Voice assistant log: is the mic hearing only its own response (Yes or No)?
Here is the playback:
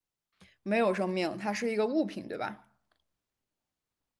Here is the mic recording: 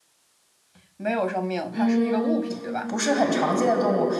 No